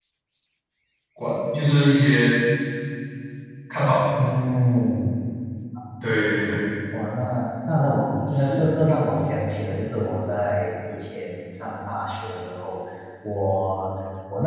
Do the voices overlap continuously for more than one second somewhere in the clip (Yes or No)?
No